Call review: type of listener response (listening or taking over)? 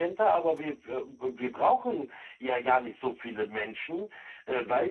listening